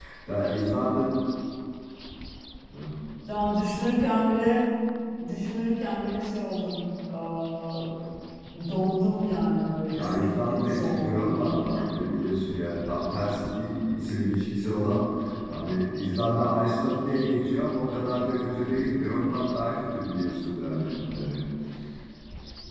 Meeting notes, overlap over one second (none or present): present